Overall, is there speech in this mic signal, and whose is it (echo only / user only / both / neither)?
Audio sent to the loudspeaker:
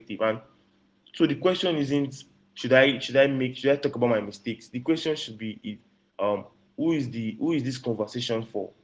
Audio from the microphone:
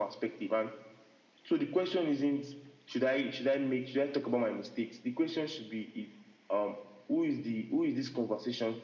echo only